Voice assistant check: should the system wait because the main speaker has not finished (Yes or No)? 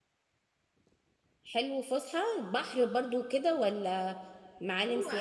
No